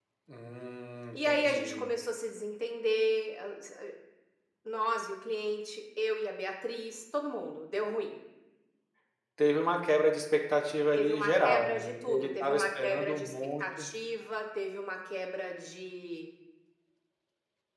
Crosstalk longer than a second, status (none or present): present